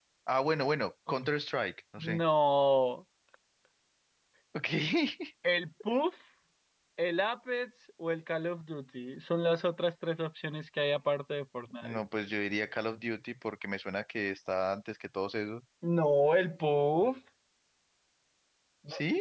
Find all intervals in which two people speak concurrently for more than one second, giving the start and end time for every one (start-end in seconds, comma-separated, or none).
none